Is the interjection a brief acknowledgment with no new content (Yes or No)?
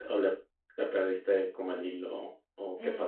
No